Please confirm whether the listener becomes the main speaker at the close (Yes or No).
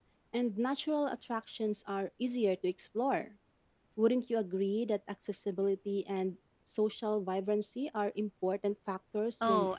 Yes